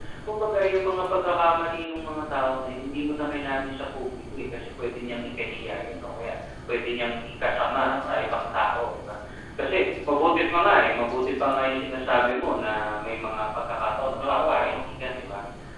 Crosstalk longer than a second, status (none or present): present